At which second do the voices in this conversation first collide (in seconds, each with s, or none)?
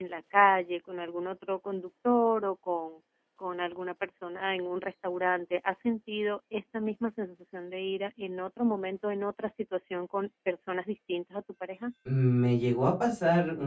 none